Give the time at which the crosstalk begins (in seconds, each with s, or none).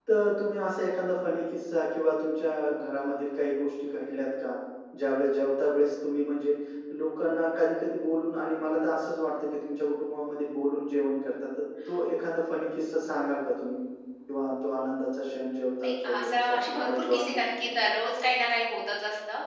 15.8 s